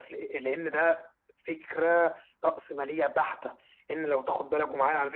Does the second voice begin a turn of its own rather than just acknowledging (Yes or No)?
No